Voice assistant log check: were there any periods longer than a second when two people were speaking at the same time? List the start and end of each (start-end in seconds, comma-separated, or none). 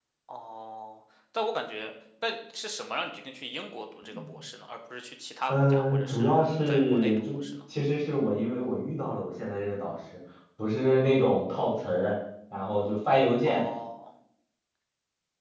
5.5-7.4